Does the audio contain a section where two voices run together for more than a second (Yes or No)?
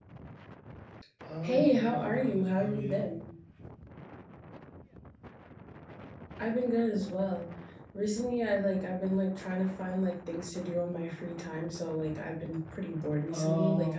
Yes